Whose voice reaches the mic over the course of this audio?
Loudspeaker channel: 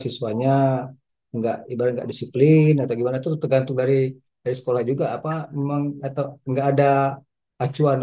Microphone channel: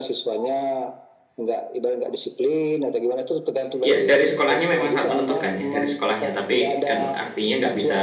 both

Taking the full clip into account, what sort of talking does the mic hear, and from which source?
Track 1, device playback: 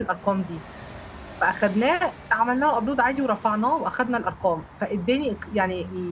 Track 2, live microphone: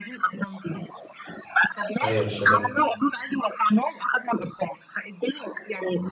both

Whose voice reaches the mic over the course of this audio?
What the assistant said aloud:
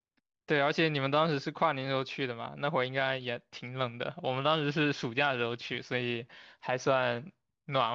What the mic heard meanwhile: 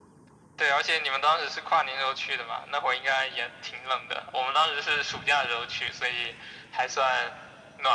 echo only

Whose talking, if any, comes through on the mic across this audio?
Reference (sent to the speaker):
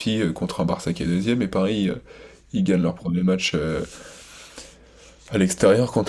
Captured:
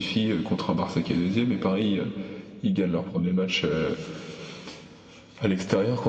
echo only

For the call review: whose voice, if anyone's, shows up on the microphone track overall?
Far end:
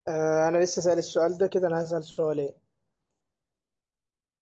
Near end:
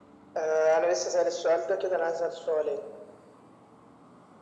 echo only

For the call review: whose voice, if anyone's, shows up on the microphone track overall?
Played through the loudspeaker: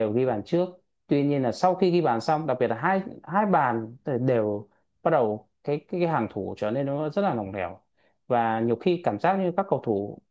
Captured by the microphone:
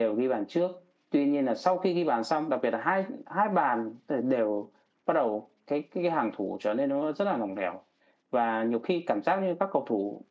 echo only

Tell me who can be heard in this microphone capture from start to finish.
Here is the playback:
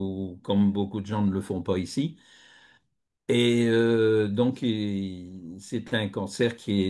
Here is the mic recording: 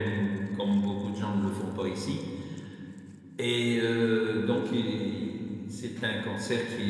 echo only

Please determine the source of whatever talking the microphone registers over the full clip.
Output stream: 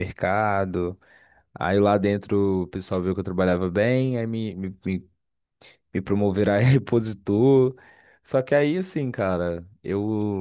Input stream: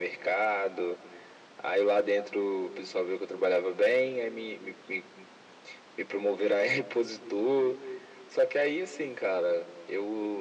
echo only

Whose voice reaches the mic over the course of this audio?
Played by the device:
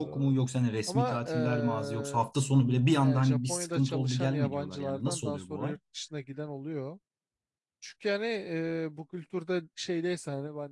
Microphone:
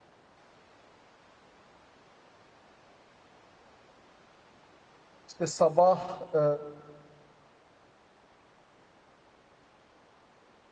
user only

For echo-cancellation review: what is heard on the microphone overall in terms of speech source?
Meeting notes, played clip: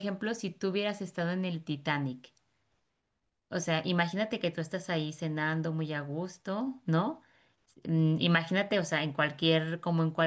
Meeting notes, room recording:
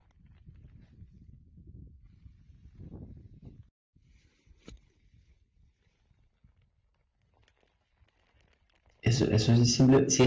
user only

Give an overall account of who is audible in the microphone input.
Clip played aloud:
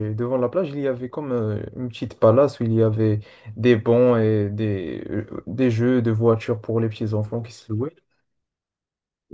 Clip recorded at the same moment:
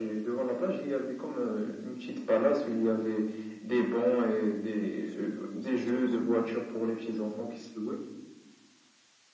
both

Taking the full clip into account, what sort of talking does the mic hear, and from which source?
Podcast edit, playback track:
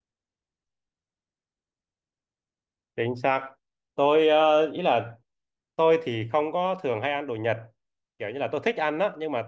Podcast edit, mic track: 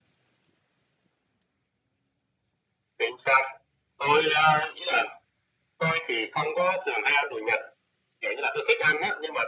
echo only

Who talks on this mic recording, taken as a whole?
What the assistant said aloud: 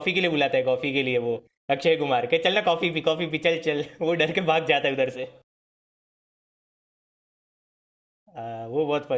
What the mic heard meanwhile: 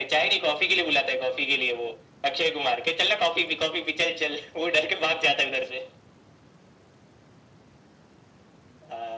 echo only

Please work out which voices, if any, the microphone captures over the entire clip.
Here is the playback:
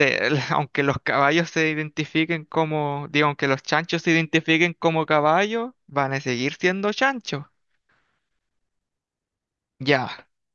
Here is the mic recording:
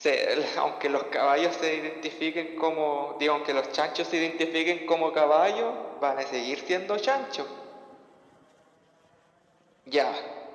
echo only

